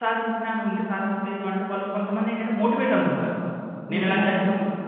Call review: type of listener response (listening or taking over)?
listening